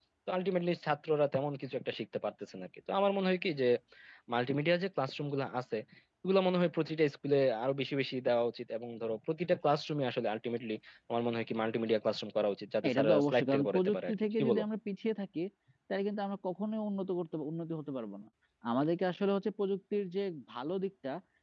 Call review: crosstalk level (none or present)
present